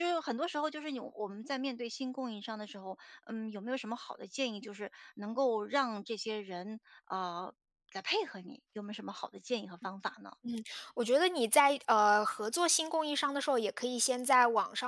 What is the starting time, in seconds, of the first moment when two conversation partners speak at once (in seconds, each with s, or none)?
none